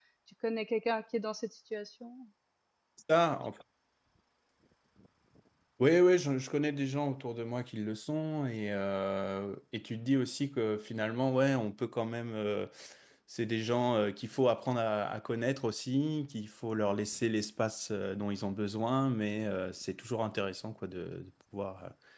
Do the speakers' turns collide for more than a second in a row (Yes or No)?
No